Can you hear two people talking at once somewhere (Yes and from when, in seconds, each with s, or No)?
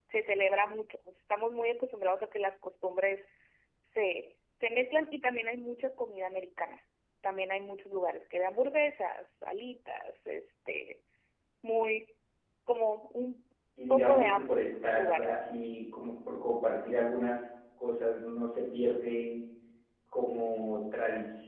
Yes, from 13.9 s